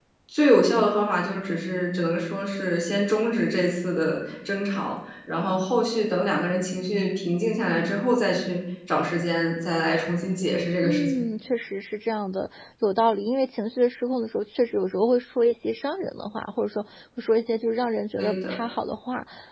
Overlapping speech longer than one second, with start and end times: none

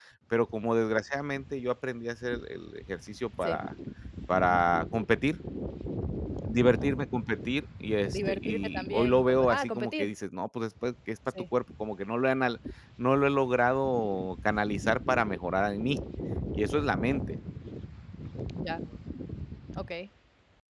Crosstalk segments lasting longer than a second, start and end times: 8.1-10.1

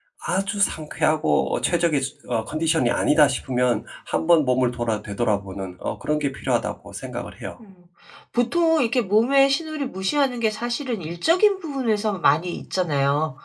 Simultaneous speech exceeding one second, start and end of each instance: none

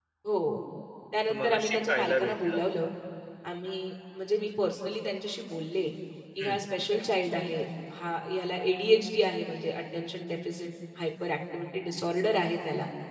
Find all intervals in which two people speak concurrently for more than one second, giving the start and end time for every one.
1.3-2.6

